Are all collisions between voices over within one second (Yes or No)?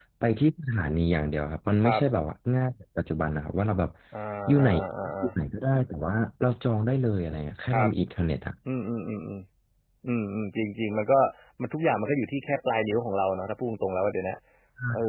Yes